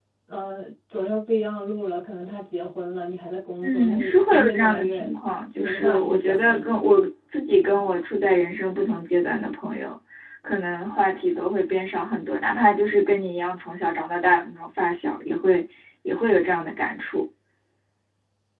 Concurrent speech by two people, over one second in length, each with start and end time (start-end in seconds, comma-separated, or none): 3.6-5.1, 5.6-6.9